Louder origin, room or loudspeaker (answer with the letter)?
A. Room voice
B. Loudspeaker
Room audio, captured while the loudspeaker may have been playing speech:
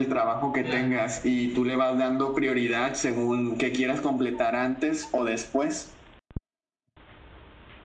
B